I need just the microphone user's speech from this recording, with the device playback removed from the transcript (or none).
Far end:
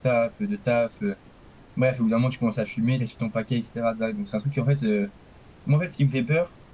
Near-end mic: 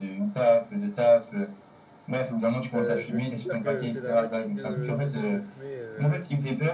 Euh, je vais te dire que c'est dramatique de, de, de- de fumer, euh,